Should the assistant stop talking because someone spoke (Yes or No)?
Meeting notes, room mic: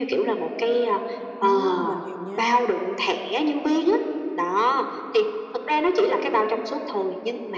Yes